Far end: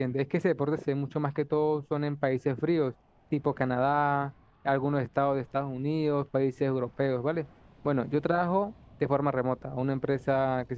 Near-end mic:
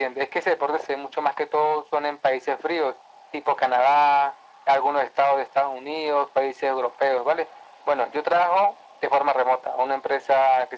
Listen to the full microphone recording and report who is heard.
echo only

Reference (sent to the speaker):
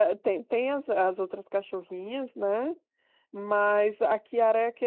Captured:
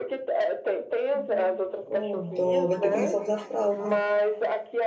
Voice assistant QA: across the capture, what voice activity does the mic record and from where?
both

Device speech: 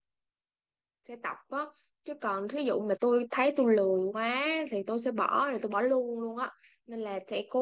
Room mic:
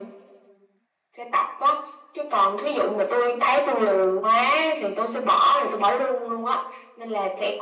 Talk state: echo only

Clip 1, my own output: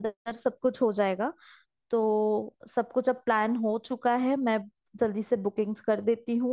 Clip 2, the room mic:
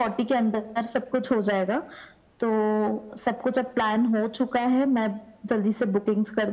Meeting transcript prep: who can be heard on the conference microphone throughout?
echo only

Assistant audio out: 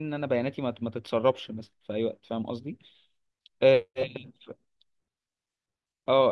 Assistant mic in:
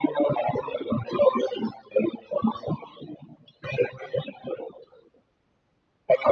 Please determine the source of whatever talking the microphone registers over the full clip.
echo only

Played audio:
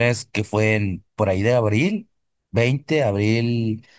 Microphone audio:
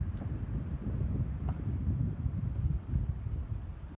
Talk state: neither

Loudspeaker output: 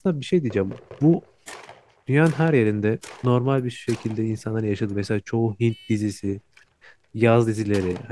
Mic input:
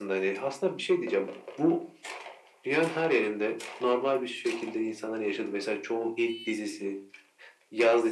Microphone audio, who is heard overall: echo only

